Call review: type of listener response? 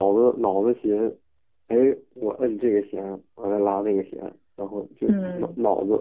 listening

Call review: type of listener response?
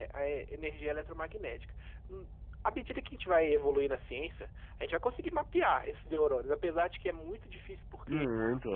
listening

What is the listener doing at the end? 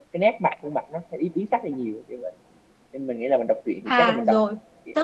taking over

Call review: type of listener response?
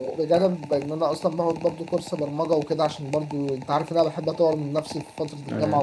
listening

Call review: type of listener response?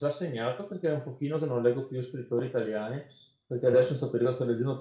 listening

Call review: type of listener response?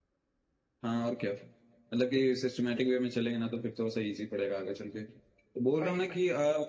listening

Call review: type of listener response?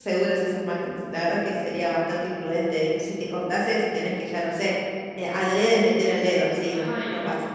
taking over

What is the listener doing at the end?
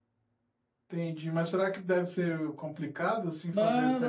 taking over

